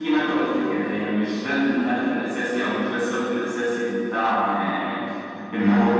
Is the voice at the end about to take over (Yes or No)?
No